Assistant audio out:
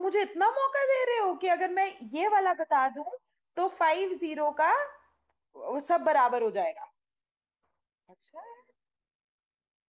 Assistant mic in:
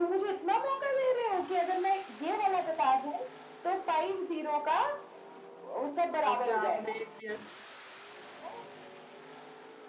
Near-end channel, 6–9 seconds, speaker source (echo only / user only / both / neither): both